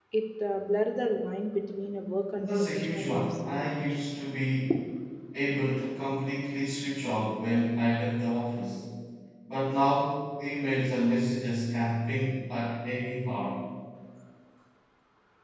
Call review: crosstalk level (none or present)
present